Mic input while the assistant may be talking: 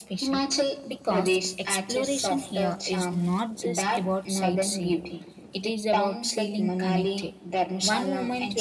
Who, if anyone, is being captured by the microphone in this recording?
both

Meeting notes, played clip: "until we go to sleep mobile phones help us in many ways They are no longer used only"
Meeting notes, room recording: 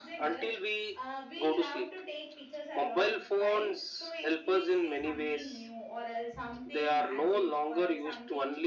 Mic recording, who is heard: both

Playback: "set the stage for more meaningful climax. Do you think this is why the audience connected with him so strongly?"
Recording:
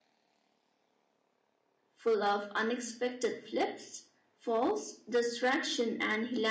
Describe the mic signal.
user only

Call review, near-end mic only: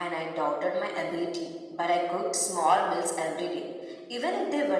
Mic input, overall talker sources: echo only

